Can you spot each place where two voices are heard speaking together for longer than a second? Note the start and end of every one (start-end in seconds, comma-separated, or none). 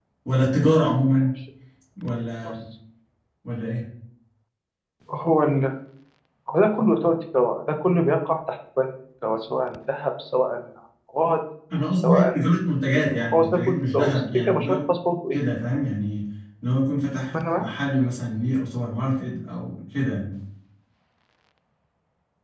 12.9-14.8